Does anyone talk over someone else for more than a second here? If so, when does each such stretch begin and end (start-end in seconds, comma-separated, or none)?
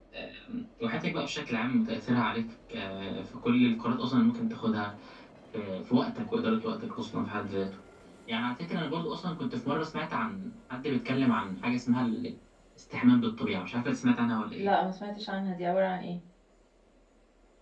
none